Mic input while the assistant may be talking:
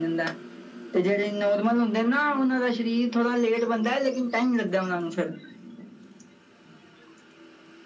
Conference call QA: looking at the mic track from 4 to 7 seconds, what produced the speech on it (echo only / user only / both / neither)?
echo only